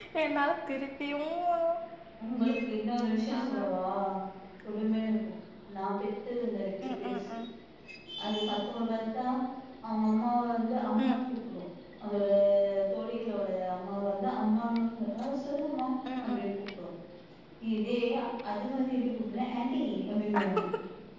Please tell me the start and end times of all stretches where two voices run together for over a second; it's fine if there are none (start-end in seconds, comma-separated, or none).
none